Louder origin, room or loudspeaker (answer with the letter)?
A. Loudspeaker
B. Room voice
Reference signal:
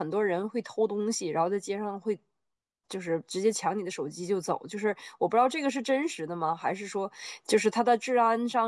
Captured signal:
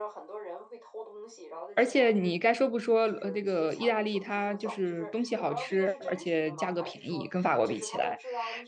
B